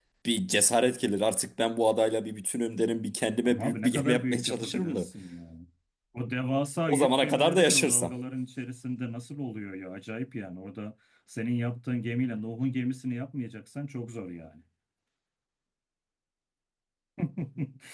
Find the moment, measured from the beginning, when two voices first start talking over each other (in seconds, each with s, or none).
3.4 s